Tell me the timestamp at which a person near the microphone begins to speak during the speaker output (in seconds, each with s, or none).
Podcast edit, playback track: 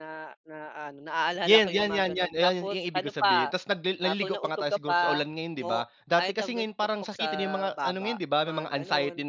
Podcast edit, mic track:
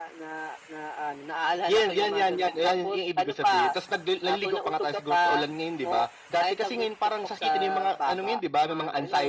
none